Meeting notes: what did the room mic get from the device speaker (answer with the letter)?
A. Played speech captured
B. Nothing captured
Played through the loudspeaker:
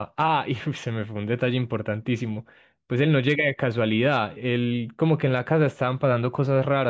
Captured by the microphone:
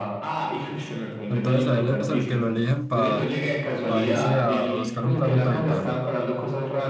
A